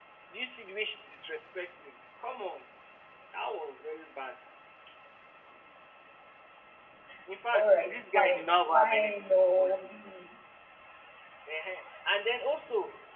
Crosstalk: present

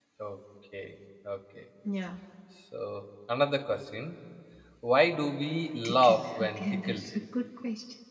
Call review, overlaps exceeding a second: present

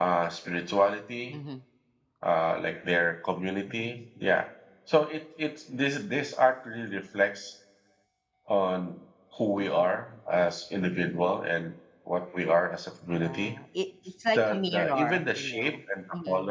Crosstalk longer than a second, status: present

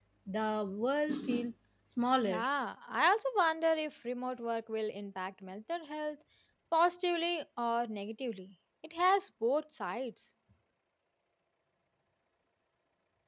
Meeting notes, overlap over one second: none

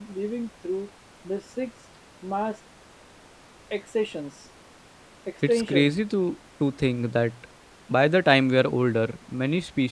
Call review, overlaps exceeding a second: none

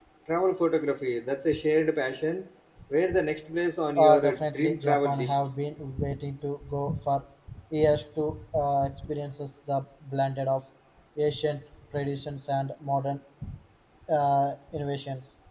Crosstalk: present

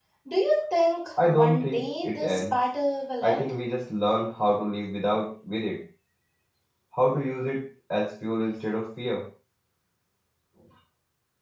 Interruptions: present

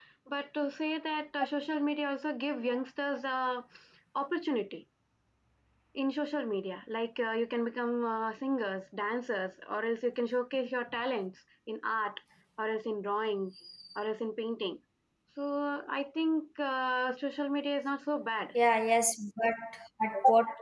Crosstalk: none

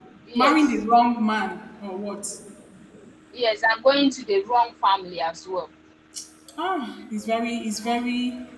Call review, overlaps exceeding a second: none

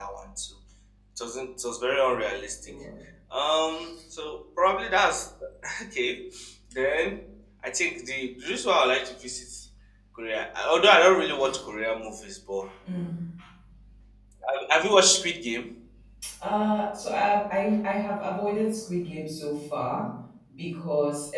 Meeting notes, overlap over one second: none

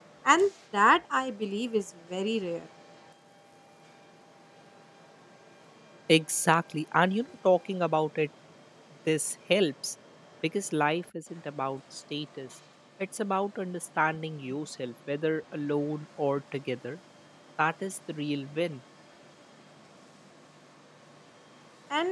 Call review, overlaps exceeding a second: none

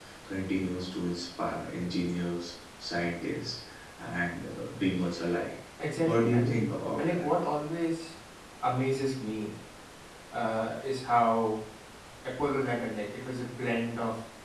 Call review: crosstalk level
present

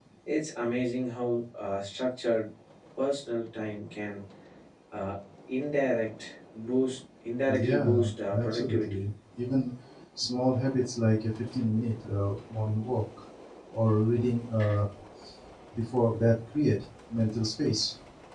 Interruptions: present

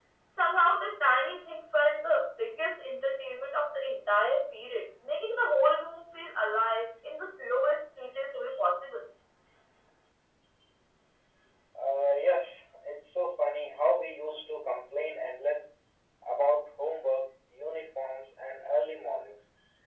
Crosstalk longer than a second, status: none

